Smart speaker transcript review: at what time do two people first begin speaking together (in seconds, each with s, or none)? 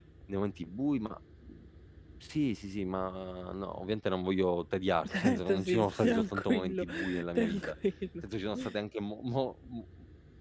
5.0 s